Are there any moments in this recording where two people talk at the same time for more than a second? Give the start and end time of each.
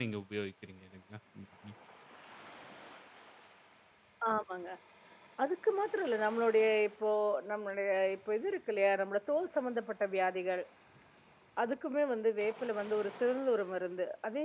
none

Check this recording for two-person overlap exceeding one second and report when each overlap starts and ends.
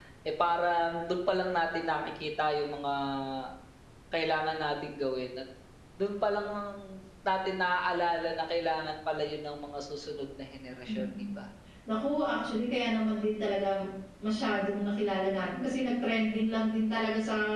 none

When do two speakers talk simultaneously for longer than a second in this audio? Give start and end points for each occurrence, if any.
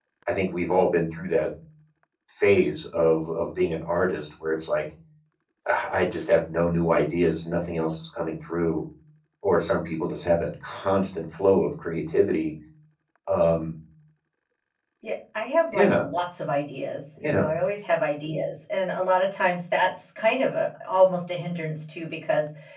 none

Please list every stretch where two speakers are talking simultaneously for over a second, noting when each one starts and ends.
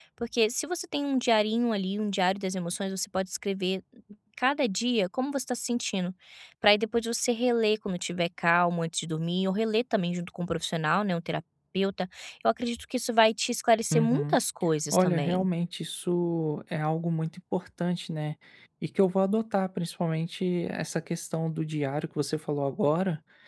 none

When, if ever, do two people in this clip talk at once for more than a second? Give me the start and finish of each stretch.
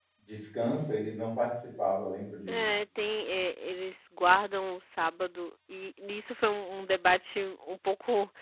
none

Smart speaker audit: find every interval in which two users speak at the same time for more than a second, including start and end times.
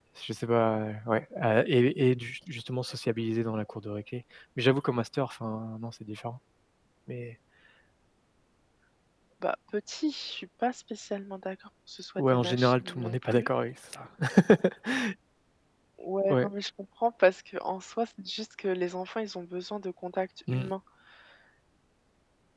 12.2-13.5

